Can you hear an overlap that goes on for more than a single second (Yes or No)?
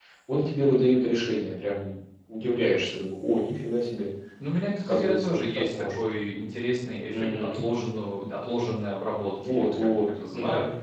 Yes